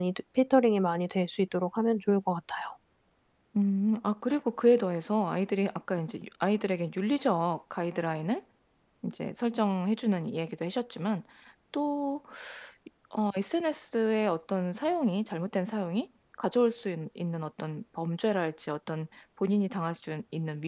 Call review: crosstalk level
none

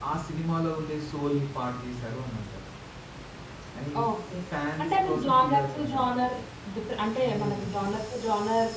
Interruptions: present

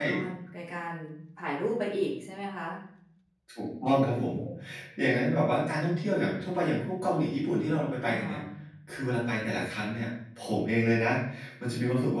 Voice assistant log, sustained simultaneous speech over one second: none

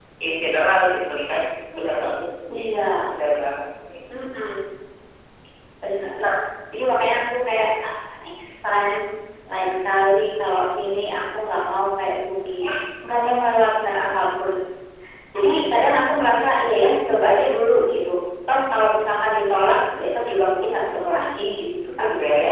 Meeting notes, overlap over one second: none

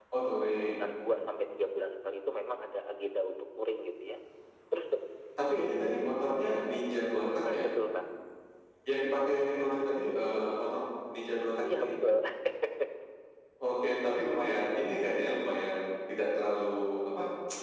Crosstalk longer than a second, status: none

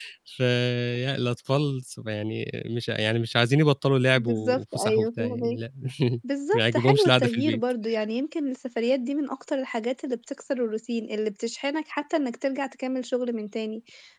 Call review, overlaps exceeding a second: present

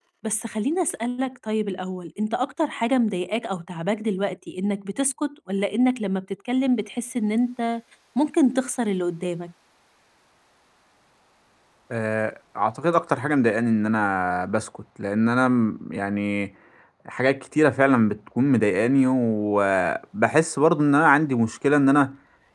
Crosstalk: none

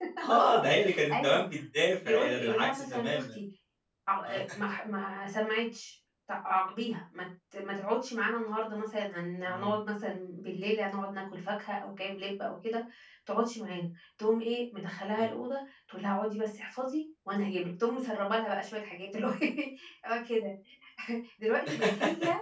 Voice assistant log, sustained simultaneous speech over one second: present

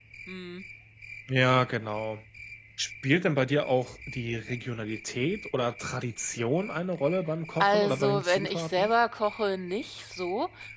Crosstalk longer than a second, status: present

